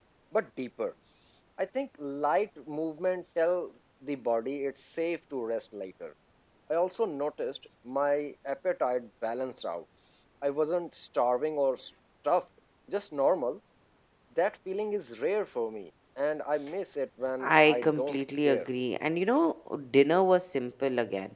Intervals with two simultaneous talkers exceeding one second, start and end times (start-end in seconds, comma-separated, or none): 17.4-18.7